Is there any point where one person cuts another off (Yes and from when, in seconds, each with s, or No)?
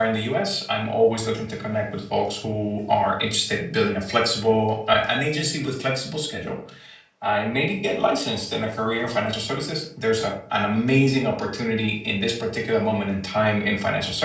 No